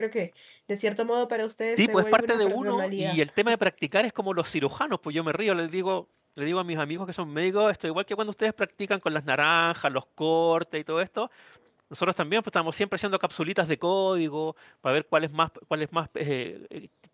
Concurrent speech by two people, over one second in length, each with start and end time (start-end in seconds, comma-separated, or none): 1.7-3.2